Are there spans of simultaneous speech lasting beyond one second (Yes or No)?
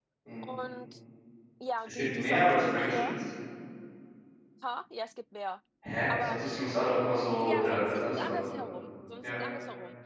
Yes